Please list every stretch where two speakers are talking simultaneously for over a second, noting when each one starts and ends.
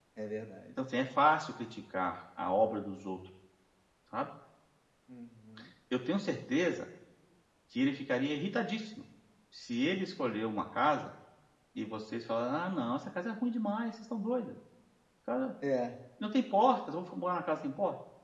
none

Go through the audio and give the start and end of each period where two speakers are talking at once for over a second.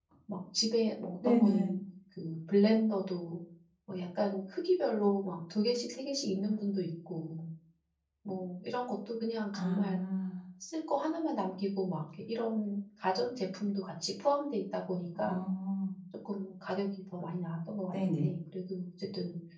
none

